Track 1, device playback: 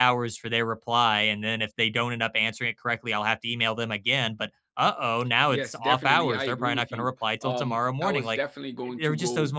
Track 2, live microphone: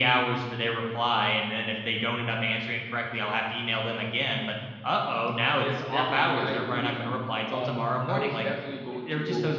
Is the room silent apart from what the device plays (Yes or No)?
Yes